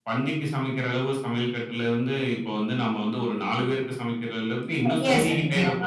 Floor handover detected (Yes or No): Yes